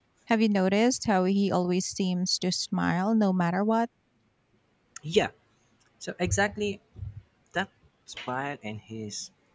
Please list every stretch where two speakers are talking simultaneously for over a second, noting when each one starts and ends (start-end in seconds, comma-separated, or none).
none